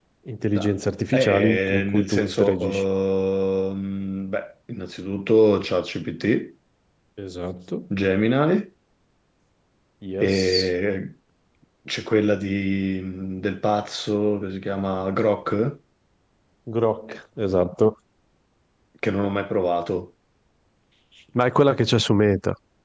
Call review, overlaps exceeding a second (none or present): present